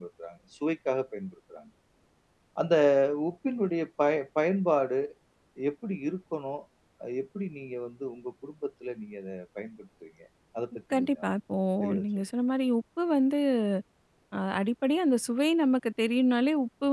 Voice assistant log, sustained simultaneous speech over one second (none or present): none